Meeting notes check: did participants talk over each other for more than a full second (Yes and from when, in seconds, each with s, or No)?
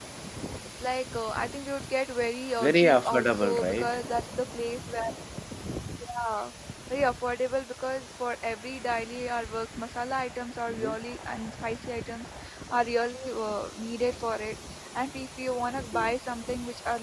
Yes, from 2.6 s